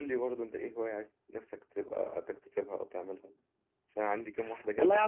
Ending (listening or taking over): taking over